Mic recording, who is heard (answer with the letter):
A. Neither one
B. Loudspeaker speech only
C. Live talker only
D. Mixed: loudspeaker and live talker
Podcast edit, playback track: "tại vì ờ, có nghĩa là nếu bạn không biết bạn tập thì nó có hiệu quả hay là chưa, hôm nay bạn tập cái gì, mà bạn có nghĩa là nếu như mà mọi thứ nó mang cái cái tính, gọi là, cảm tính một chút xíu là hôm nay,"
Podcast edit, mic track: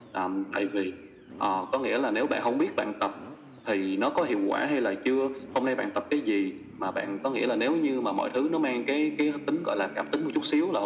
B